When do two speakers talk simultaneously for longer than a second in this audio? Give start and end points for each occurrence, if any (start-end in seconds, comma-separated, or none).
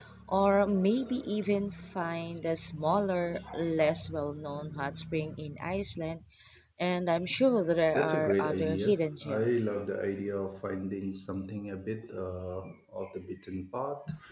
7.9-9.8